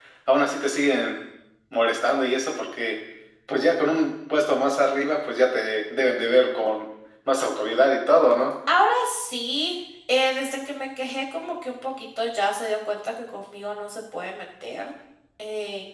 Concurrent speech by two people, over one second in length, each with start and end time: none

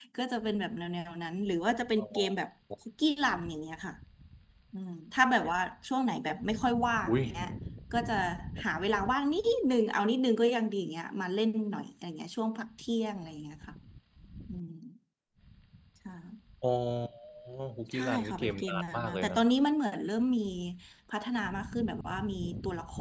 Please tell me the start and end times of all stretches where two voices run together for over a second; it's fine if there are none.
17.9-19.4

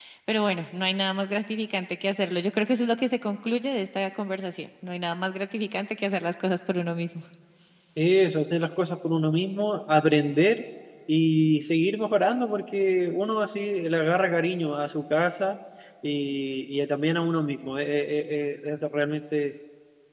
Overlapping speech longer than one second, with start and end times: none

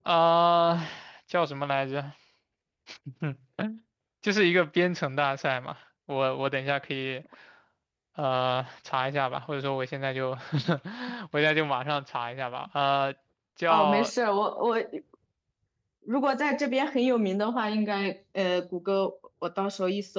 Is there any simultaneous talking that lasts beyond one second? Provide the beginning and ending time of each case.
none

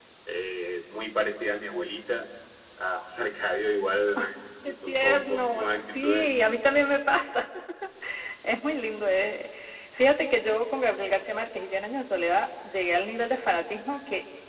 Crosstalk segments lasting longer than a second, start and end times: 4.9-6.3

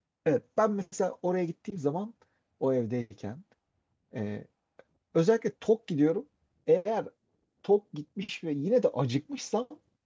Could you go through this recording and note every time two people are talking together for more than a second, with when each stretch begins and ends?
none

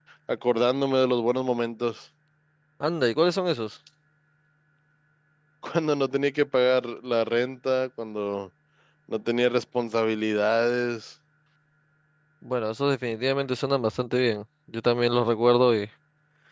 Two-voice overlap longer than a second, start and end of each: none

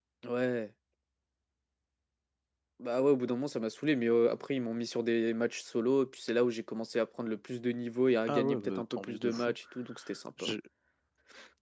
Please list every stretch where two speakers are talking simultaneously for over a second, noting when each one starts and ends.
8.3-9.5

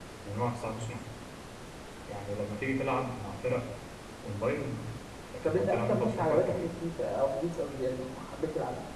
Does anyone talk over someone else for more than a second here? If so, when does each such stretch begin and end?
5.4-6.7

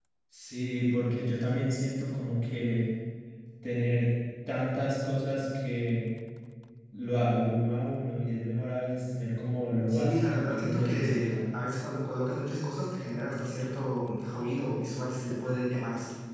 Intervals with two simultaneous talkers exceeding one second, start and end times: 9.9-11.4

